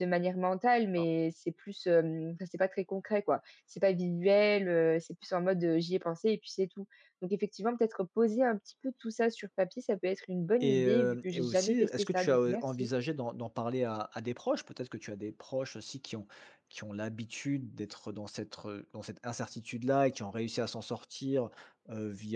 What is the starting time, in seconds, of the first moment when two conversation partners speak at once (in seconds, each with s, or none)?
10.6 s